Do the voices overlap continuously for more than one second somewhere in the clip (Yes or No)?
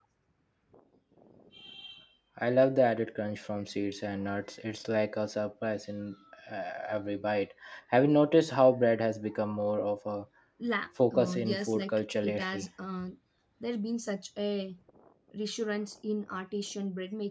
Yes